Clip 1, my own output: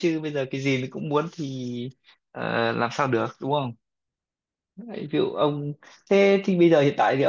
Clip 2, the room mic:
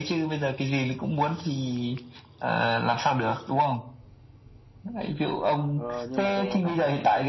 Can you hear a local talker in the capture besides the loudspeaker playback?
Yes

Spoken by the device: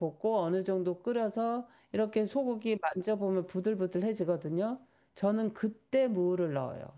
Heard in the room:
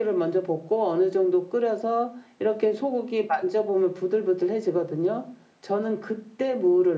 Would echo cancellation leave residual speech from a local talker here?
No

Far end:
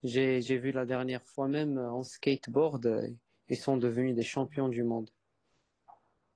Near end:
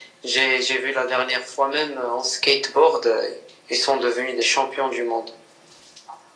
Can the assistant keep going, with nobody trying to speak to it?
Yes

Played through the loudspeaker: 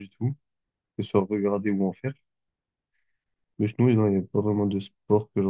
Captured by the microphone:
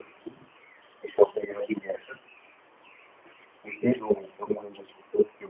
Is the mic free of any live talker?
Yes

